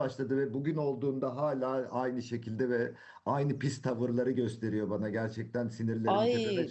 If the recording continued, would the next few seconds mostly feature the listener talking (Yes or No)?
Yes